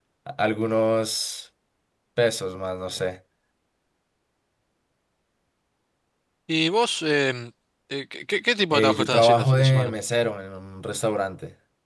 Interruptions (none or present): present